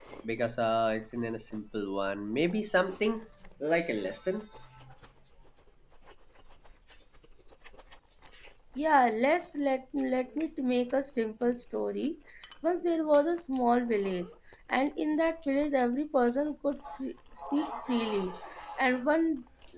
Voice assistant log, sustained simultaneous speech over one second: none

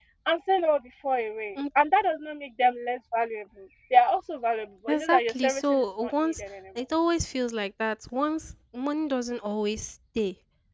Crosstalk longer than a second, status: present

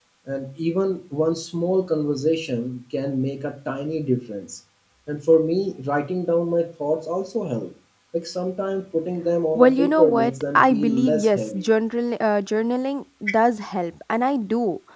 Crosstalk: present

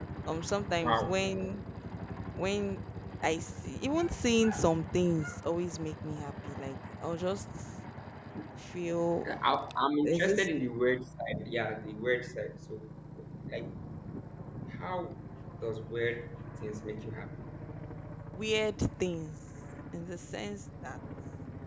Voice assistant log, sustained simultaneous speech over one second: none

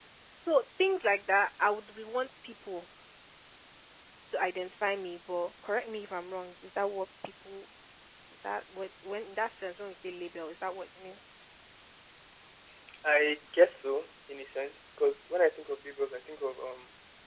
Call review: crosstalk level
none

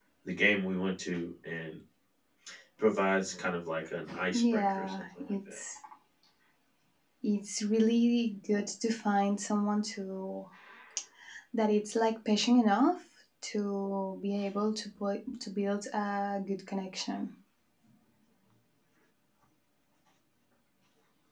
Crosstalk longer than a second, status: present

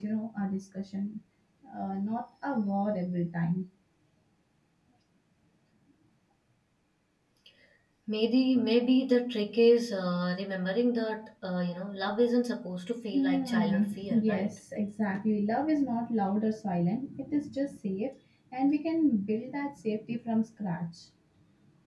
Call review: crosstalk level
present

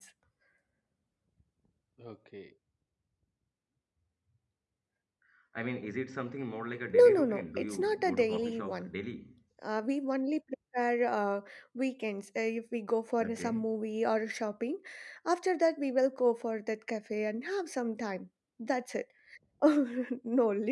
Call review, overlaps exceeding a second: present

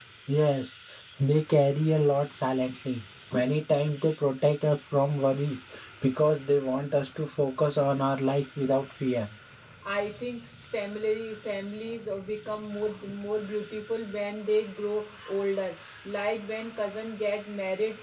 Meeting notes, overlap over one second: none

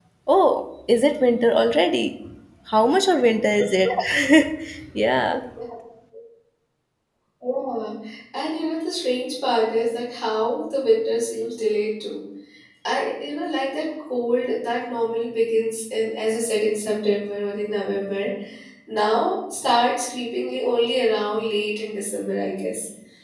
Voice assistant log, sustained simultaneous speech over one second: none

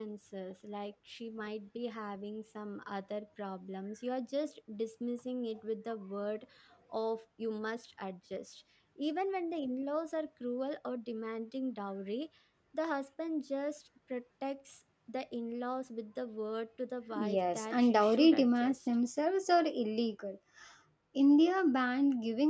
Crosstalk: present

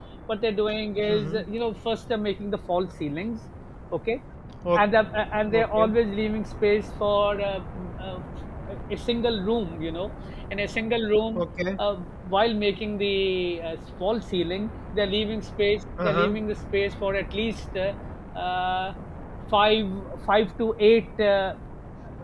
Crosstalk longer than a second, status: none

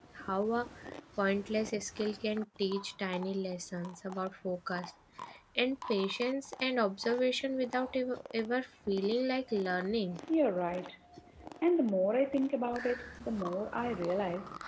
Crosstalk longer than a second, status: none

